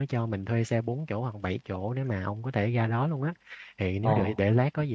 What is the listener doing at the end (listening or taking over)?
listening